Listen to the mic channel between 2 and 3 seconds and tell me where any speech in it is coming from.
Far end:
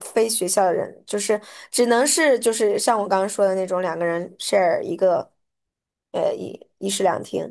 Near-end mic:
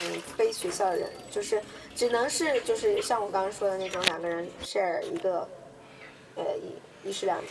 echo only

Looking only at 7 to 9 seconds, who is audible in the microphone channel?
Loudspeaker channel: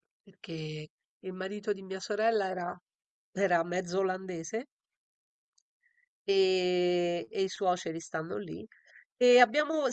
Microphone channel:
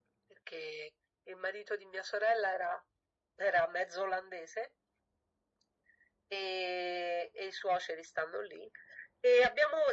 echo only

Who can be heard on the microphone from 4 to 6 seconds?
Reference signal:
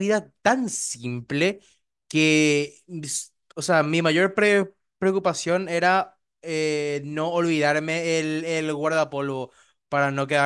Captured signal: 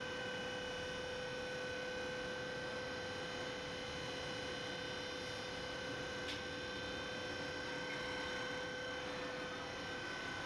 neither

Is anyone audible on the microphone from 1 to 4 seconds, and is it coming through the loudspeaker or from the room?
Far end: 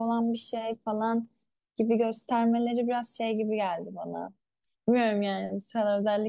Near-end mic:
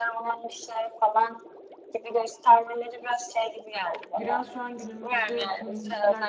echo only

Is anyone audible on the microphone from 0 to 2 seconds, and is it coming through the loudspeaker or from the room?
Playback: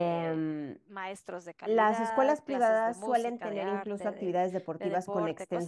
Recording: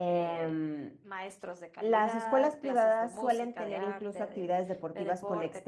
echo only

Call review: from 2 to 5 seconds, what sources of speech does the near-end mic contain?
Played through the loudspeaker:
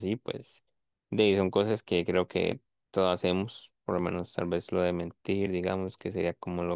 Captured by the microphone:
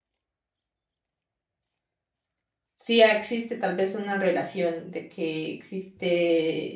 user only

